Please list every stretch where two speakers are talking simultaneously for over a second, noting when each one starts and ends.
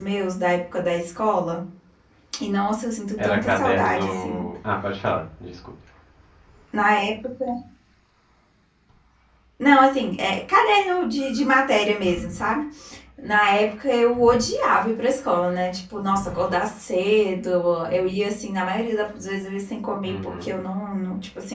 3.2-4.5

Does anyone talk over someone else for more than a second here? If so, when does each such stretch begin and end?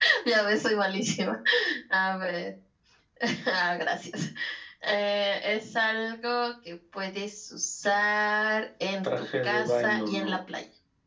9.2-10.4

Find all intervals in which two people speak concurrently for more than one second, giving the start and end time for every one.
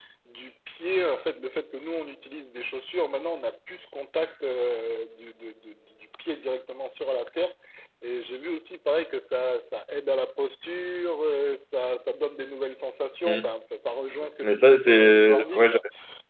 14.4-15.8

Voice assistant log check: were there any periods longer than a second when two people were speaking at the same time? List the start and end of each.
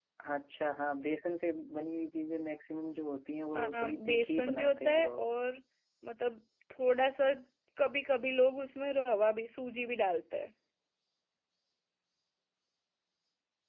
3.5-5.2

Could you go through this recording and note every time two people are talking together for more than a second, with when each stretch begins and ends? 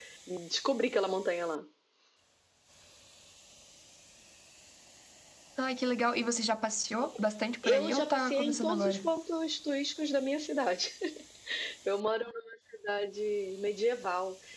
7.6-9.1

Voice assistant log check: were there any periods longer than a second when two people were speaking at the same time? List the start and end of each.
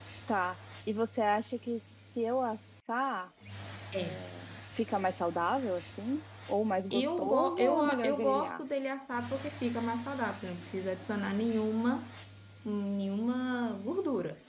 6.9-8.6

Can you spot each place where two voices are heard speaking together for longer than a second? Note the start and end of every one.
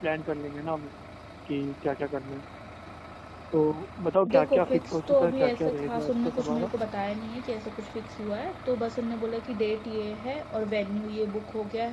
4.3-6.7

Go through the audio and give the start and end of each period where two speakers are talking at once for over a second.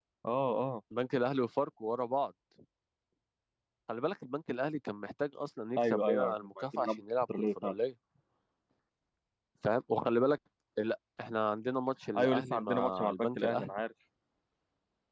5.8-7.8, 12.2-13.7

